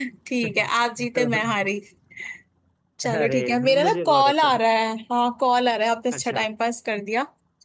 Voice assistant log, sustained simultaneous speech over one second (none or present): present